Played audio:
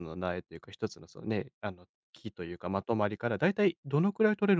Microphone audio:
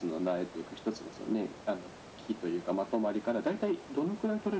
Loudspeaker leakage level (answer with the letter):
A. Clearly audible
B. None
A